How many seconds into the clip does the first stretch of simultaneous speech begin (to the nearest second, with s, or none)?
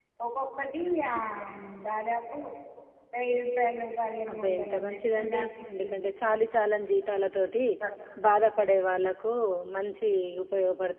4 s